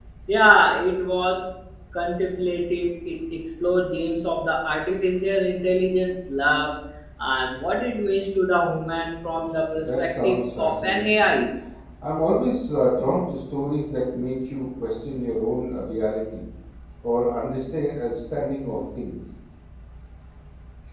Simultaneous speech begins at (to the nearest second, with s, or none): 10 s